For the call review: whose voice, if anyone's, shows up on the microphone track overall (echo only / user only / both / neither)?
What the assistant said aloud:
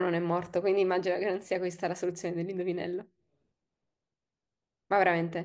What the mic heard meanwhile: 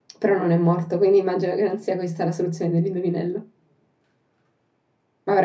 echo only